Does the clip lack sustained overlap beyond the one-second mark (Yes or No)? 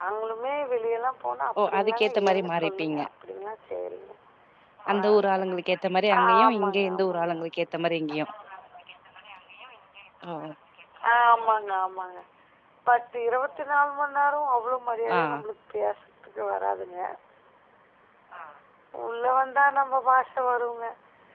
No